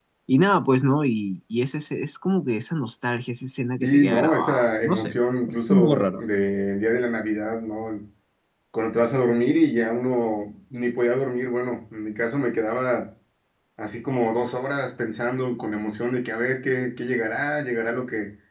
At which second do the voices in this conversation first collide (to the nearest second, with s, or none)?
4 s